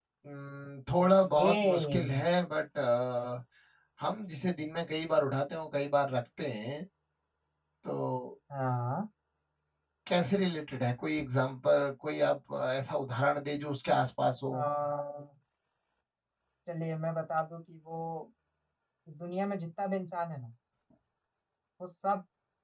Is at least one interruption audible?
Yes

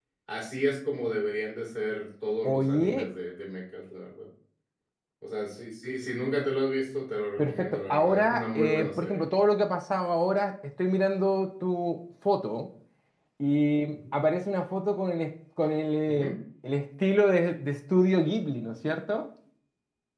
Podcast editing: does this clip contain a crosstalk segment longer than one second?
Yes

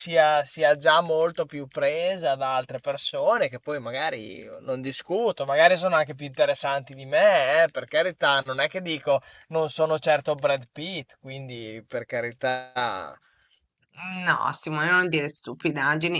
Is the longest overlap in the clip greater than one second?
No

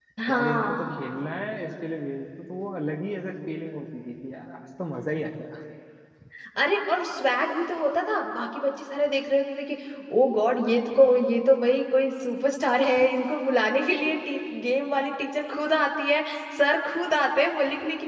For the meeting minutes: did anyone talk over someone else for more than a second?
No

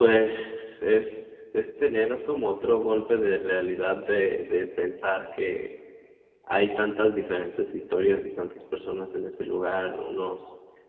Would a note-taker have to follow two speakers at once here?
No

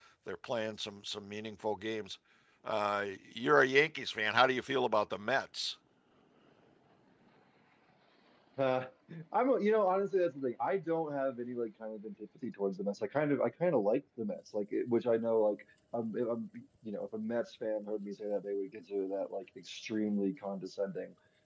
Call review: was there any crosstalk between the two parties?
No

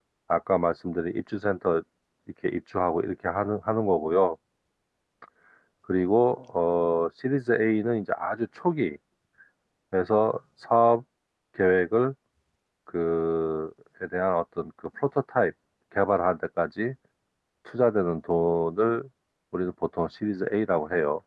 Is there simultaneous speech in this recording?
No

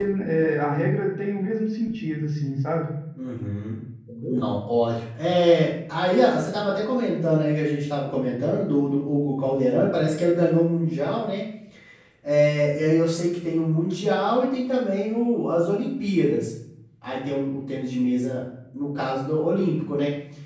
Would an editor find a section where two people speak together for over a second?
No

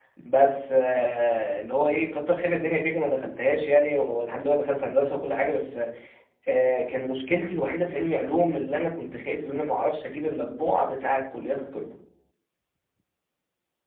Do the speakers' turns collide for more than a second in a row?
No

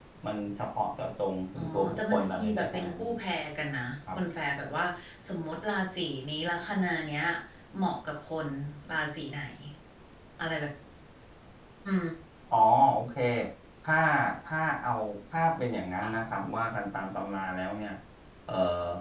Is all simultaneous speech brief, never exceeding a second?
No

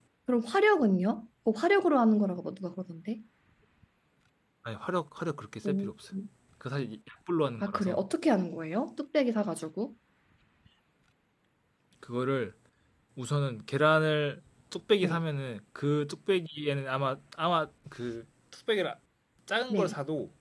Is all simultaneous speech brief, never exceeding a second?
Yes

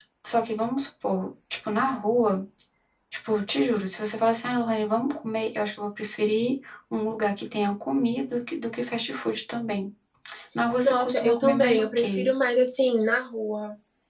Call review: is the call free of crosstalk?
No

